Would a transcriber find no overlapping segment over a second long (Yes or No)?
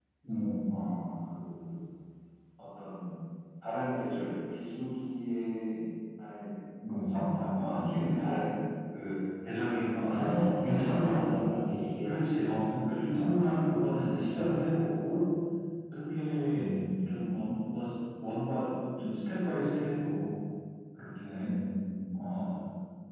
No